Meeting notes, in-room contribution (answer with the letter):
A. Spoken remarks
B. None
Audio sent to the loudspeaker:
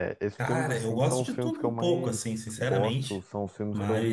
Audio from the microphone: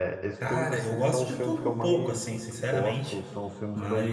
B